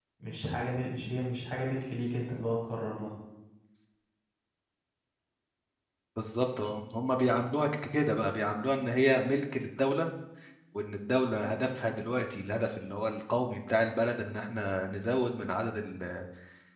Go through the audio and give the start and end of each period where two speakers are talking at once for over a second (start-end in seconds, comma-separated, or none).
none